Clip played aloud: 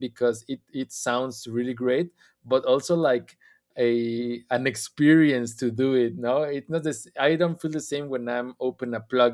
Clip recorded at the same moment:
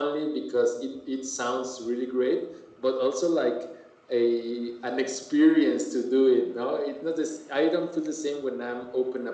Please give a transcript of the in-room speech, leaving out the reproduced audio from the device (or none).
none